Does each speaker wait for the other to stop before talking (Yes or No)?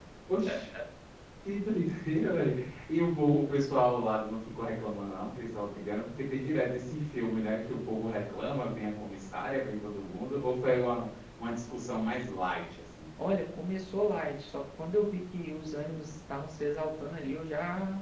Yes